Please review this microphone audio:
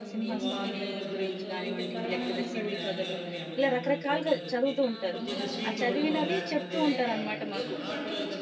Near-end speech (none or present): present